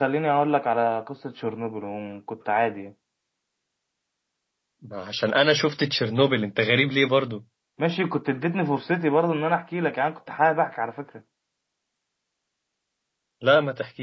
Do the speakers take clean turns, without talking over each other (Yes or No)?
Yes